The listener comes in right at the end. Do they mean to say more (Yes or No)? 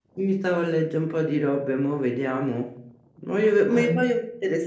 No